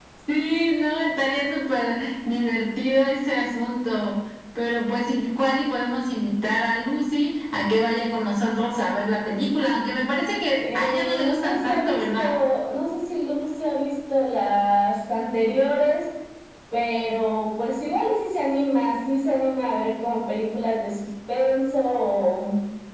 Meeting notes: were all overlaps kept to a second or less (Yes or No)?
No